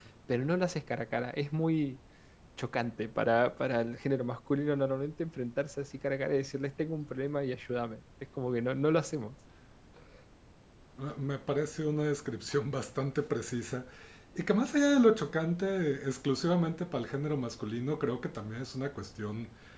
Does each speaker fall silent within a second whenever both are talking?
Yes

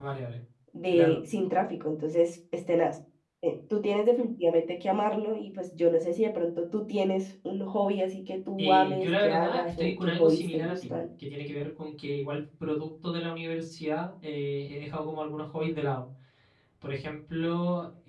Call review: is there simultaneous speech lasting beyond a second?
Yes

